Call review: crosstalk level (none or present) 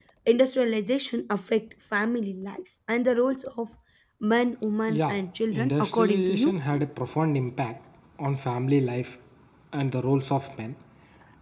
present